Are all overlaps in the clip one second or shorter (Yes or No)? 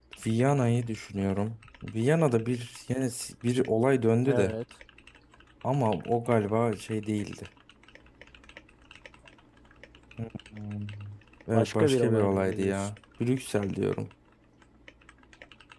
No